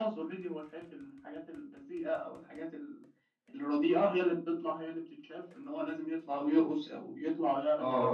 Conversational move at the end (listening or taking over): taking over